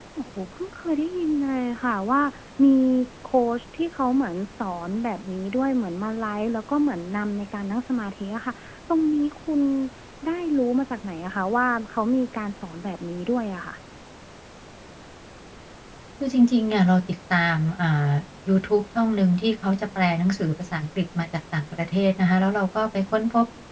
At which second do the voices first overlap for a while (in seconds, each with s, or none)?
none